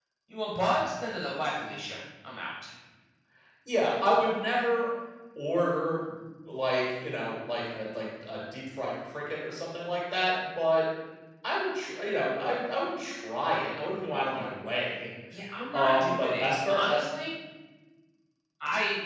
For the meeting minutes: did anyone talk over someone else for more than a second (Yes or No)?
Yes